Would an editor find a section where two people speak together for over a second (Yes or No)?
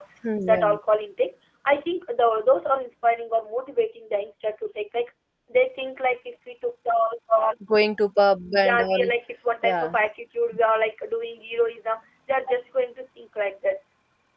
No